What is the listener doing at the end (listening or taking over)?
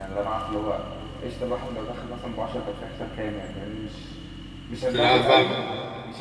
listening